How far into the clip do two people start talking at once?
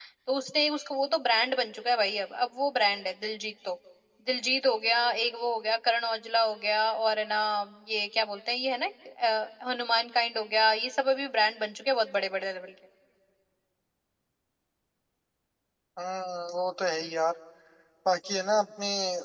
none

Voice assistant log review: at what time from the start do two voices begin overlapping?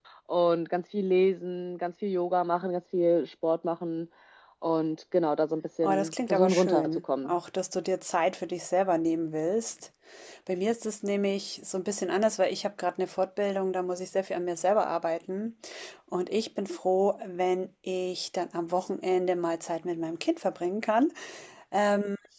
5.8 s

